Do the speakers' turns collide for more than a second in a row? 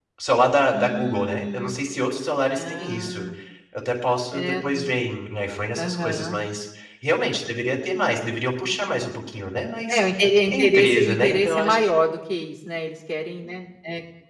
Yes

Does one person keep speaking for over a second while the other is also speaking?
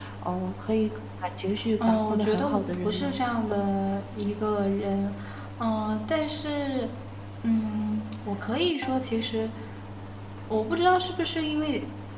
Yes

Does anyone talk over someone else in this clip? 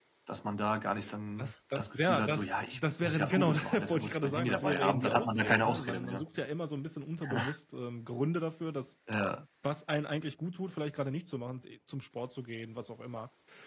Yes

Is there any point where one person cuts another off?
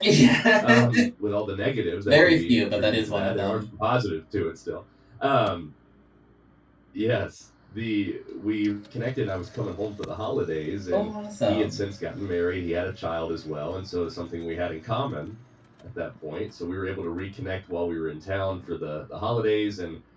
Yes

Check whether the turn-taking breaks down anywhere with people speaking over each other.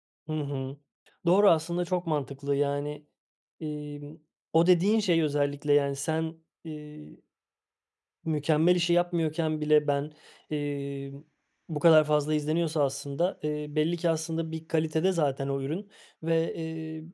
No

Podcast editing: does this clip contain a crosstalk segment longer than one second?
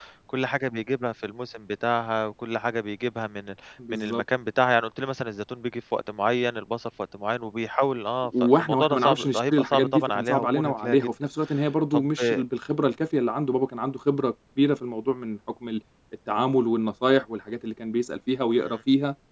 Yes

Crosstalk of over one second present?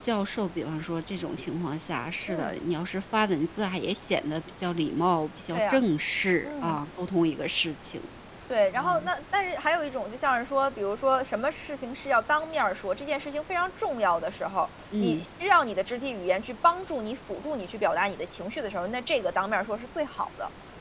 No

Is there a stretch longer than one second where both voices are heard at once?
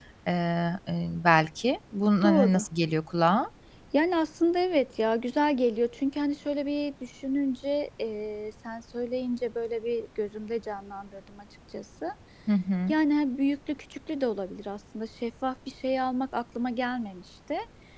No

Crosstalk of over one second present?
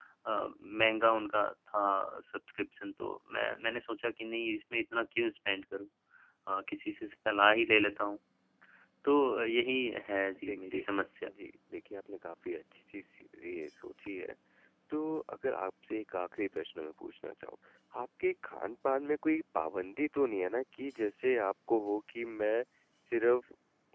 No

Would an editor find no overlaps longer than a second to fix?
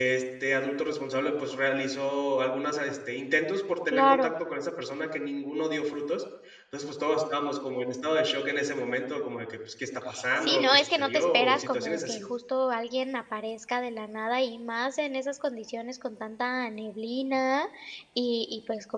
No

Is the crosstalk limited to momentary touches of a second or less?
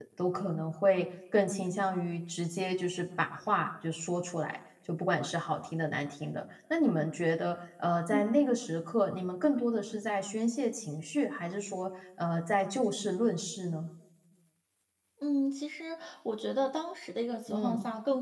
Yes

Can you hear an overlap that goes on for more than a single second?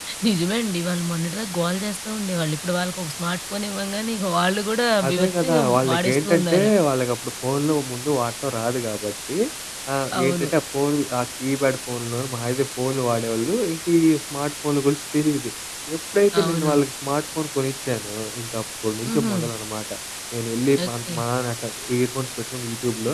Yes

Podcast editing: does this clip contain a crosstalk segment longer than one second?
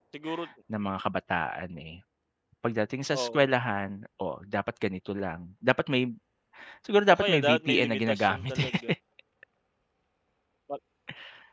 Yes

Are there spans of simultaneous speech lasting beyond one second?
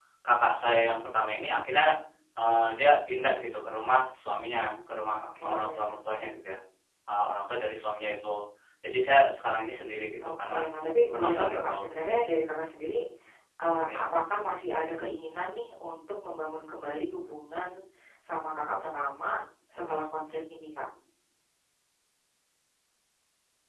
Yes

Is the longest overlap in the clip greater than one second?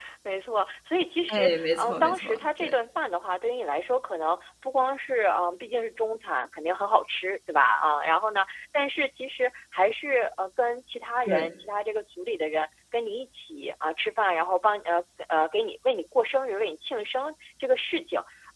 Yes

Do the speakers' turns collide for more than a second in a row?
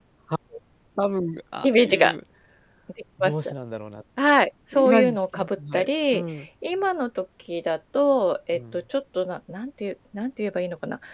Yes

